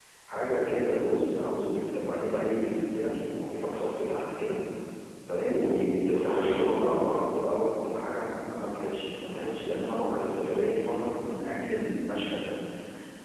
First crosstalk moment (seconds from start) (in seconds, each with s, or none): 5.5 s